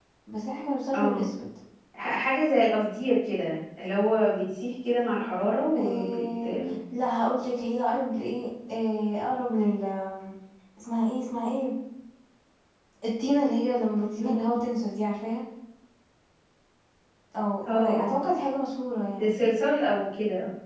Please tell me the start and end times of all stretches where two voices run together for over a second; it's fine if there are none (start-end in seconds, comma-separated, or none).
none